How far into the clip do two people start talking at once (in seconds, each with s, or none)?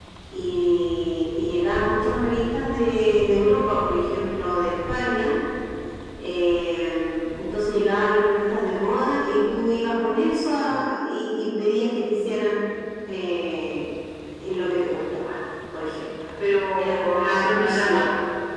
16.8 s